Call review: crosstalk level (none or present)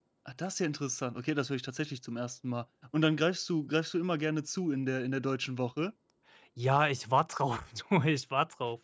none